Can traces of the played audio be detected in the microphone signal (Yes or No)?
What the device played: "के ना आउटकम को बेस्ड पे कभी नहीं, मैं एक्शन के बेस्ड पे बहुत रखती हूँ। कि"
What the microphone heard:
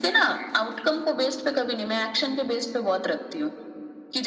Yes